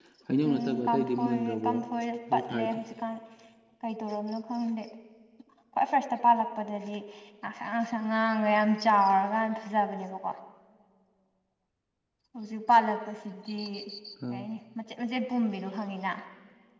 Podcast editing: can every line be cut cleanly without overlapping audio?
No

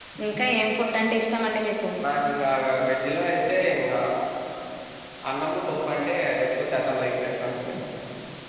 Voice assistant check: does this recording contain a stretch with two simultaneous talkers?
No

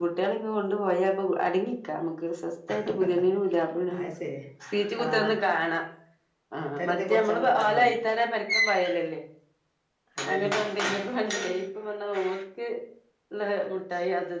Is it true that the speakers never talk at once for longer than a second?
No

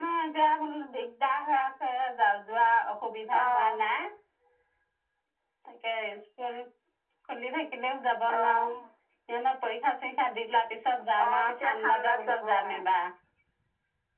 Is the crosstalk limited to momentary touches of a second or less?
No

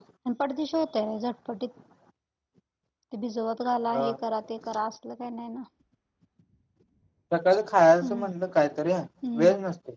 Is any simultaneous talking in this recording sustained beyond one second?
No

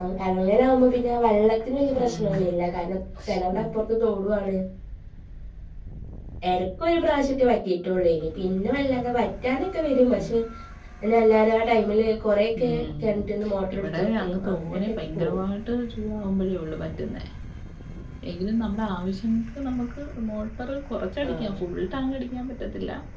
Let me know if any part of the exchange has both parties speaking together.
Yes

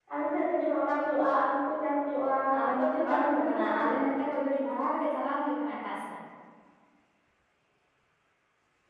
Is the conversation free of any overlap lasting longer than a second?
No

